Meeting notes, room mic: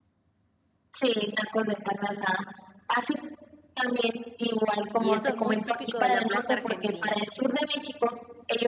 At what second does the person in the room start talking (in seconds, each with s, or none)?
5.0 s